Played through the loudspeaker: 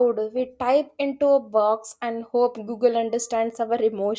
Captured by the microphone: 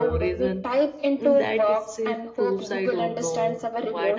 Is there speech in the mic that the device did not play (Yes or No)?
Yes